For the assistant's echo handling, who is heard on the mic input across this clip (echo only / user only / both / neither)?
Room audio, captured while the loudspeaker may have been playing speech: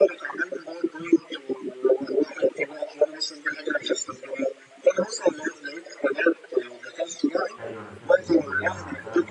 both